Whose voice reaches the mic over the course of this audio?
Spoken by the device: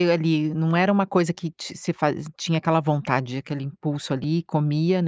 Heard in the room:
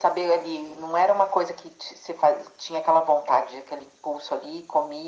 echo only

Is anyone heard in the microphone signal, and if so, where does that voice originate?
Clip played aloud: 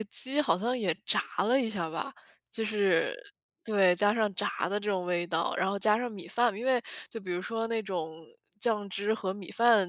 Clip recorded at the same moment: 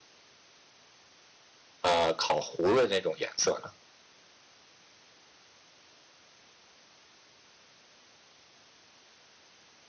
user only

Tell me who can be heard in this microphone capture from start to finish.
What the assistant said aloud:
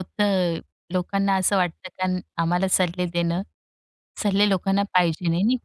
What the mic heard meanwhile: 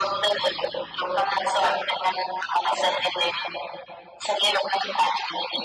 echo only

